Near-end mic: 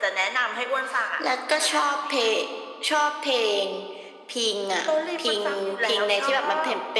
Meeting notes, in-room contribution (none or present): none